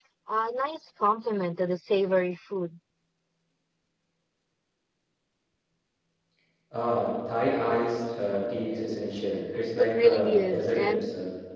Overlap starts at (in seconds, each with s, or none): 9.6 s